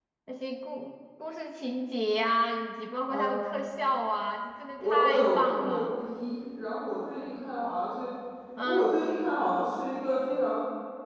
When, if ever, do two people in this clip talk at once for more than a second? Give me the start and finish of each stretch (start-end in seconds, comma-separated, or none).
4.8-6.0